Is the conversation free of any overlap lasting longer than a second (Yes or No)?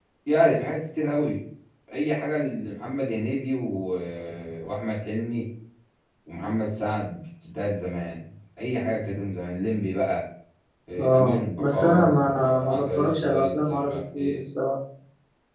No